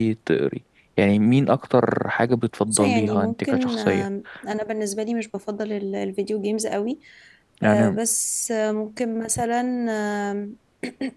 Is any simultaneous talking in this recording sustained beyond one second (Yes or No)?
Yes